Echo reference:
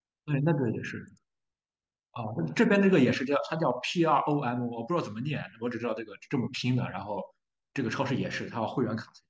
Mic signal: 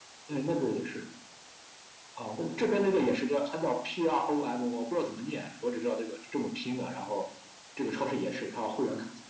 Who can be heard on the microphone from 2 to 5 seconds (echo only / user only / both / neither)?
echo only